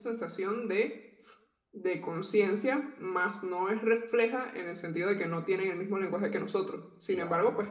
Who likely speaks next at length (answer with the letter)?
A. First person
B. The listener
A